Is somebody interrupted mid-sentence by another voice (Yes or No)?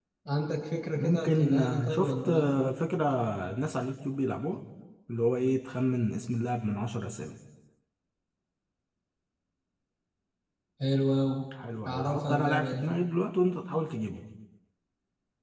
Yes